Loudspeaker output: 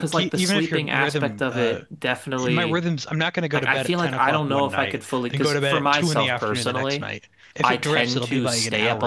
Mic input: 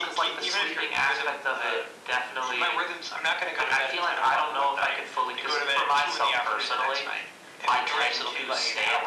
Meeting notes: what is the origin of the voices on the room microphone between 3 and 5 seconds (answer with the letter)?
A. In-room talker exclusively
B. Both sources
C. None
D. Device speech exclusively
D